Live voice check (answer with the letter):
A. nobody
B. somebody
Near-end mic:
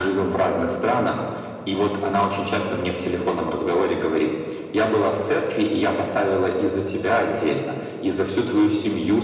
A